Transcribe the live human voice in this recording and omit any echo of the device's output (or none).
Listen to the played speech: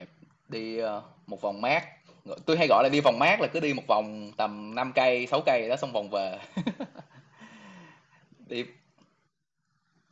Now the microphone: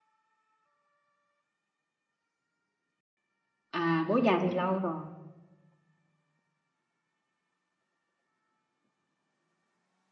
à bố già thì lâu rồi